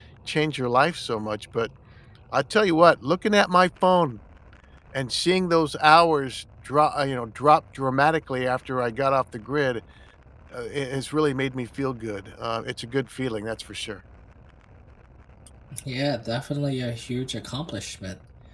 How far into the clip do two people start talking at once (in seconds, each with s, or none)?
none